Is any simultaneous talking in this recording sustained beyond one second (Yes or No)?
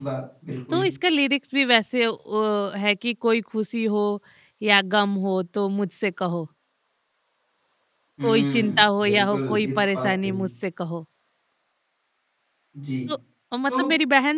Yes